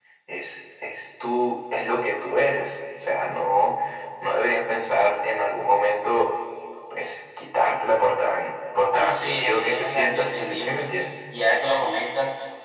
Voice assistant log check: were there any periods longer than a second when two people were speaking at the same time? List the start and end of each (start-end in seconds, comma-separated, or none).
8.9-10.8